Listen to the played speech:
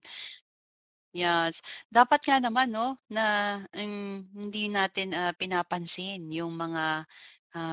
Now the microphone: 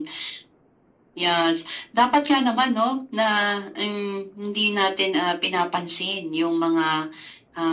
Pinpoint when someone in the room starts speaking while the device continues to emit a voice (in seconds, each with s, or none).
none